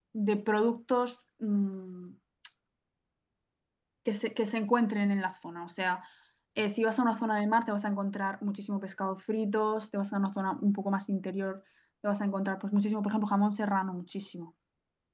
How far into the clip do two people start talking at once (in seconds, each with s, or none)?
none